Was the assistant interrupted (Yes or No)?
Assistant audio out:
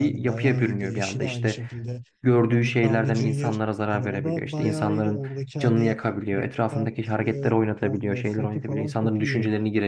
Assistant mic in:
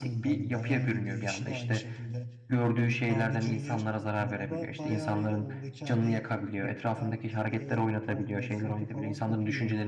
No